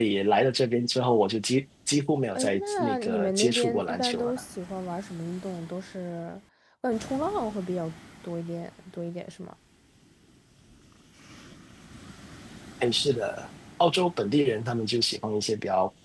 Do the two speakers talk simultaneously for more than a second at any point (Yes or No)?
Yes